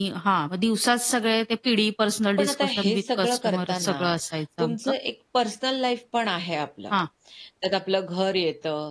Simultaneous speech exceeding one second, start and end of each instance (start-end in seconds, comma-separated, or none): 2.4-4.0